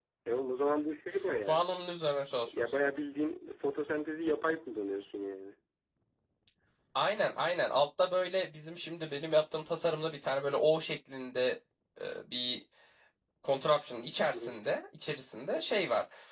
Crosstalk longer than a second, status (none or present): none